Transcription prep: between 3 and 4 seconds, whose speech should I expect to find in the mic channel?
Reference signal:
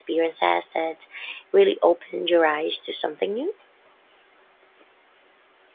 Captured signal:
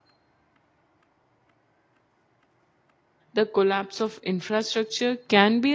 user only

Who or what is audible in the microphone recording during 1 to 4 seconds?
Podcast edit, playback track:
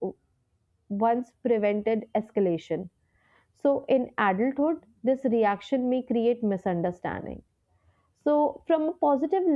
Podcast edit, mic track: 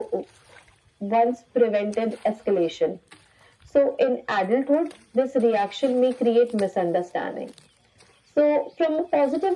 echo only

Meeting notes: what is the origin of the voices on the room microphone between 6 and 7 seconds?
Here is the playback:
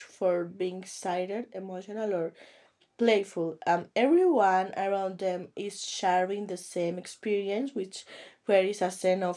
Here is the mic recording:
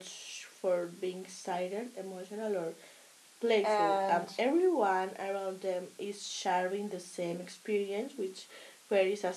echo only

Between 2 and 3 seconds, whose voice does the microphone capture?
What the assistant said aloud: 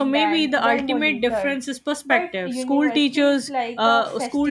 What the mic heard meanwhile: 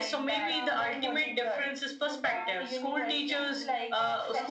both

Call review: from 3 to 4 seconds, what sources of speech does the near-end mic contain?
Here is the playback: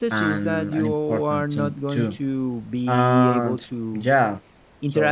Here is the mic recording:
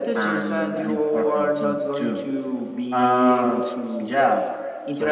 echo only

